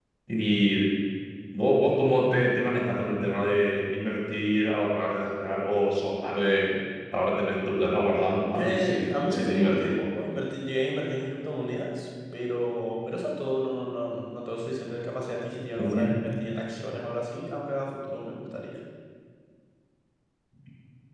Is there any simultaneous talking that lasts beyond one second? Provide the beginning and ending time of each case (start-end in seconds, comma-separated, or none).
8.5-10.0